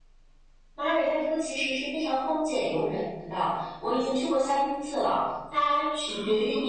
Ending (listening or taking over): listening